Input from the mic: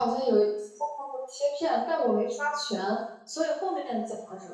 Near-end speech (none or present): present